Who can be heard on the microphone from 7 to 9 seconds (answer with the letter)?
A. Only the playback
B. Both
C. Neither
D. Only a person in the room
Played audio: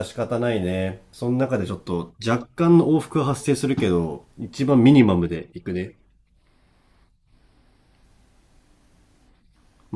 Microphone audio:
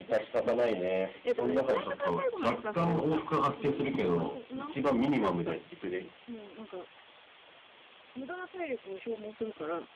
D